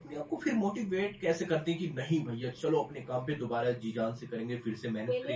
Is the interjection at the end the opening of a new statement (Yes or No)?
Yes